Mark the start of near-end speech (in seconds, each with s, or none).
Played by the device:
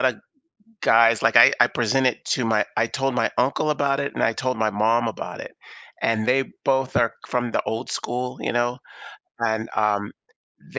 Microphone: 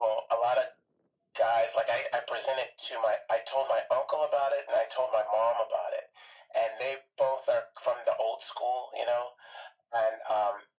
none